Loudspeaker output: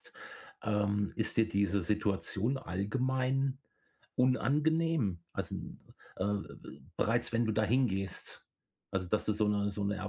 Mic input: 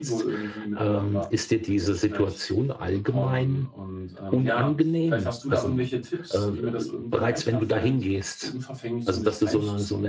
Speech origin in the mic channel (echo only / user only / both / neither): both